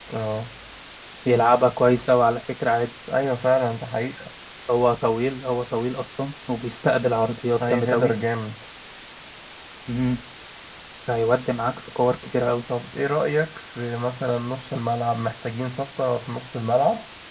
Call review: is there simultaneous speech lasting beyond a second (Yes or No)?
No